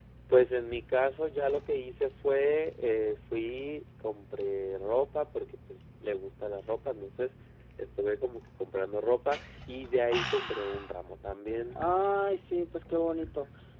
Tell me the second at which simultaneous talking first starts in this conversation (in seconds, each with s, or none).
none